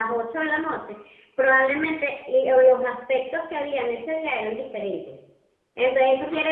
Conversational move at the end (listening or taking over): listening